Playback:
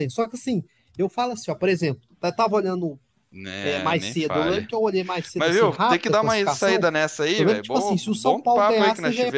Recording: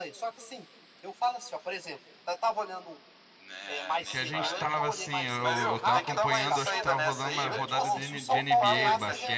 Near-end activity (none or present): present